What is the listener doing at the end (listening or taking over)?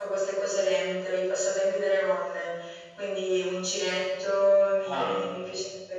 listening